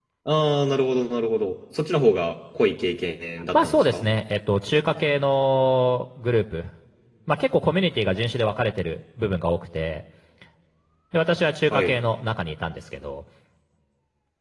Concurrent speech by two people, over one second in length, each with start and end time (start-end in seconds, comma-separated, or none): none